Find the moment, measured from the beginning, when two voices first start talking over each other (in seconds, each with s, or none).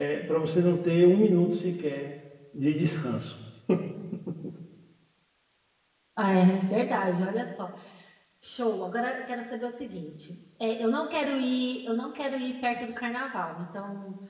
none